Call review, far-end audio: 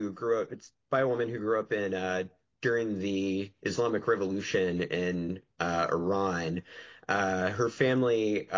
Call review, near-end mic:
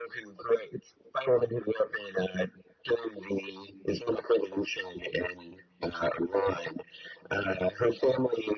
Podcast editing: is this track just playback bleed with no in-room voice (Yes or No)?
Yes